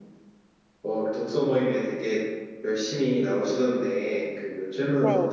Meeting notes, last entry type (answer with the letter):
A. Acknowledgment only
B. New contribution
A